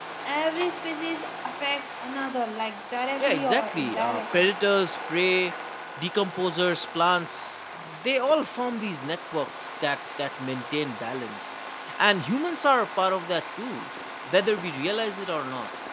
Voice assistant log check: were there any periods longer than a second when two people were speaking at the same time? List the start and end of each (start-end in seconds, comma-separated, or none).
3.2-4.5